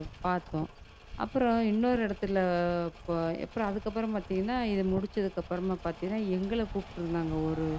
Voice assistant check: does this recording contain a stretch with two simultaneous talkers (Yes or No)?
No